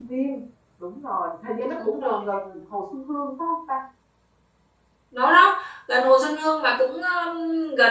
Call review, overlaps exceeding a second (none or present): none